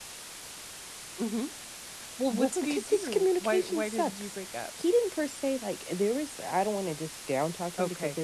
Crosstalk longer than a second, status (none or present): present